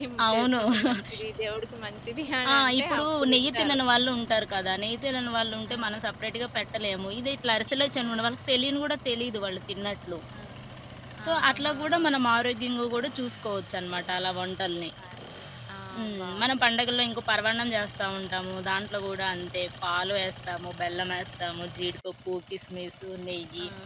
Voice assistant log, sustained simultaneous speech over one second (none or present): present